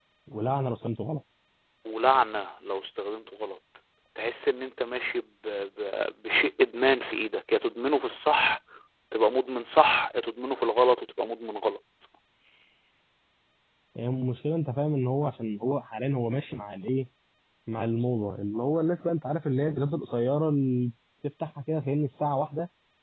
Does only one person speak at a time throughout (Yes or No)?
Yes